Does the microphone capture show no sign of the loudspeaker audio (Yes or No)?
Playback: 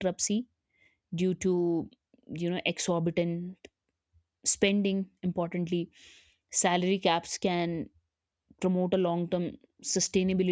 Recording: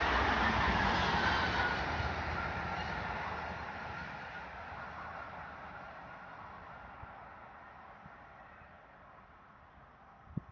Yes